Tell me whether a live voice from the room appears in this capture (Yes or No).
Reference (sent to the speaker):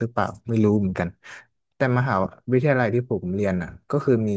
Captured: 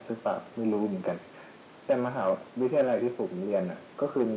No